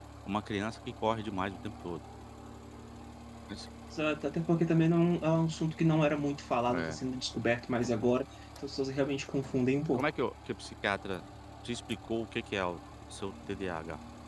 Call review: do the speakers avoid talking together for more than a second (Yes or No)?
Yes